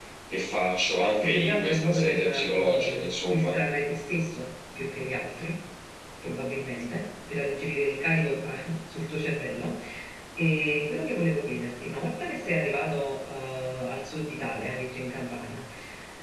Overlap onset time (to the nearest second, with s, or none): 1 s